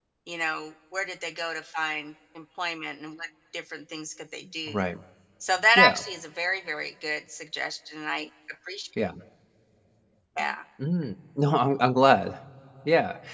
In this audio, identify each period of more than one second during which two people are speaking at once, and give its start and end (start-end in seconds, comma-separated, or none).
none